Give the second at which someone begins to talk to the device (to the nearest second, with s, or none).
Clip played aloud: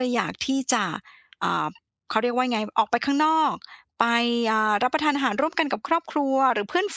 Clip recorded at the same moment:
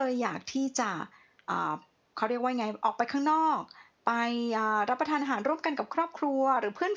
none